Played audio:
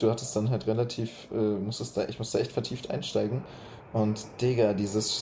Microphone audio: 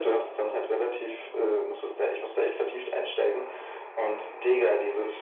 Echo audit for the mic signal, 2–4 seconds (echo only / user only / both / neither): echo only